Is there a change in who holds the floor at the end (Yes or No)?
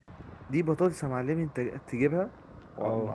No